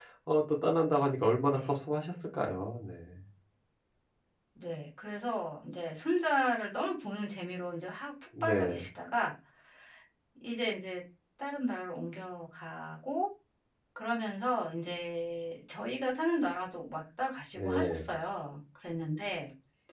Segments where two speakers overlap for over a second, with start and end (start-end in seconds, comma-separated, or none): none